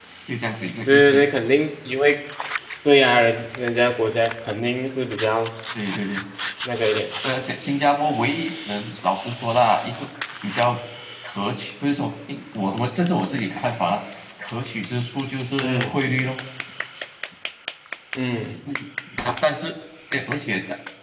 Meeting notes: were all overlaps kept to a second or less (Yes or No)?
Yes